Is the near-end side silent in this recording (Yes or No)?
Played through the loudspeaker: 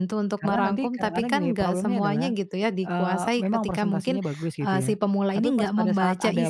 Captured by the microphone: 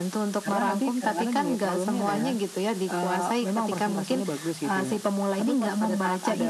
No